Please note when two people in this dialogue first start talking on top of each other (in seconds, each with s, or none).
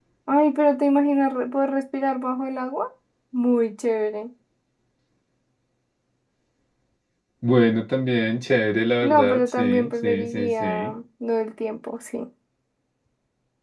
9.0 s